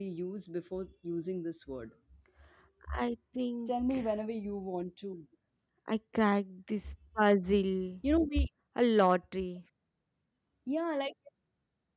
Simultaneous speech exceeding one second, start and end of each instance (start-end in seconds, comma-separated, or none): none